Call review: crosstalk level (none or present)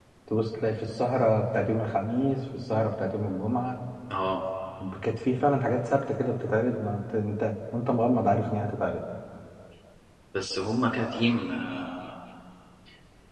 none